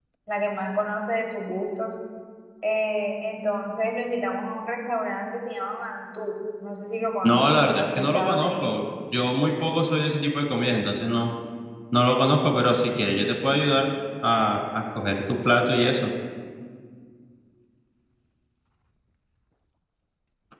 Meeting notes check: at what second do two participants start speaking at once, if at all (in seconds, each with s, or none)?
7.2 s